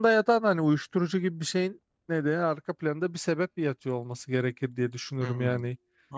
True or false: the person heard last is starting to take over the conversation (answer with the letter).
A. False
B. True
B